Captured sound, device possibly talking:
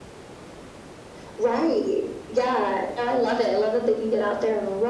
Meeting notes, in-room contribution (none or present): none